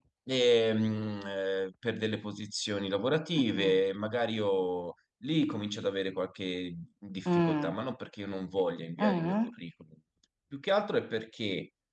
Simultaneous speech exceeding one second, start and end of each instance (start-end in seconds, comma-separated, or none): none